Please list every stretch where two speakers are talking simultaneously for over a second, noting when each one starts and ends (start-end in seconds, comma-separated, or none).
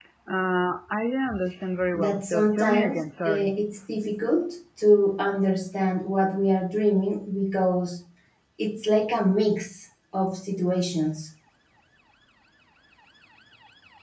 1.9-3.5